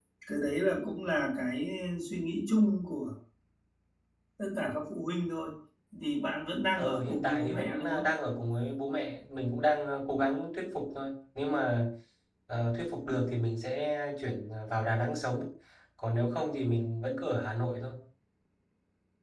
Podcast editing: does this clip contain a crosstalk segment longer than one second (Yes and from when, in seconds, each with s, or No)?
Yes, from 6.7 s